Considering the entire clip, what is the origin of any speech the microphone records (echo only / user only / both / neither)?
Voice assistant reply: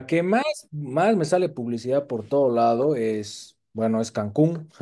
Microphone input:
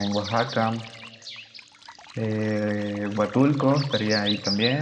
user only